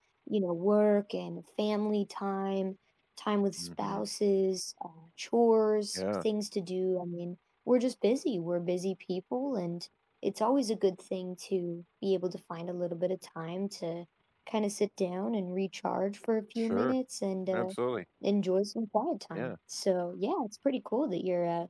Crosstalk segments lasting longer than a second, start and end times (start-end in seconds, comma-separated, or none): none